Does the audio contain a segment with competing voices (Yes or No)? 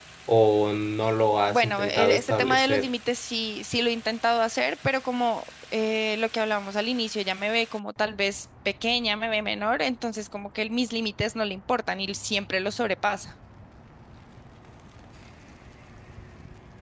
Yes